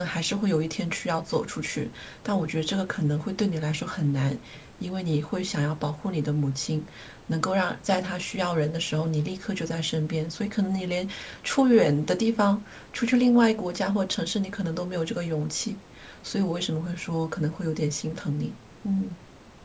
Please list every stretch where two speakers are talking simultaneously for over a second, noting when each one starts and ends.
none

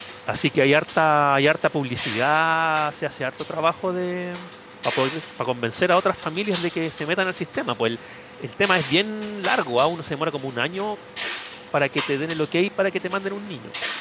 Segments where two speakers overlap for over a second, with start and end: none

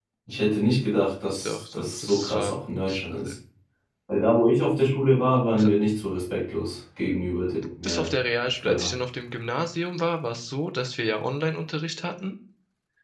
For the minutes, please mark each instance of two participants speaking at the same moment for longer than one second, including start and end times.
1.4-3.3

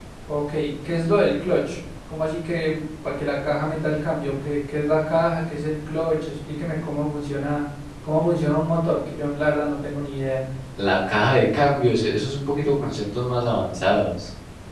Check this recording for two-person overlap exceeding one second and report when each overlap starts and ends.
none

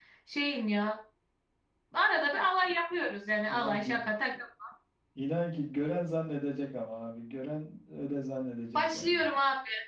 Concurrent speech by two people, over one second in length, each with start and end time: none

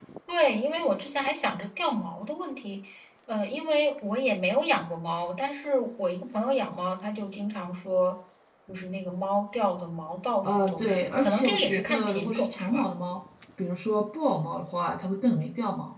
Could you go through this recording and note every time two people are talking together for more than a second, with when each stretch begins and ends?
10.4-12.8

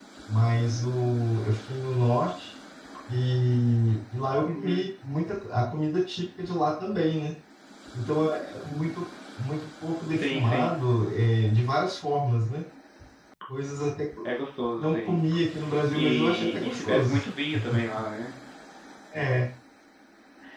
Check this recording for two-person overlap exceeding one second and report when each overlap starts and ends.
15.9-17.2

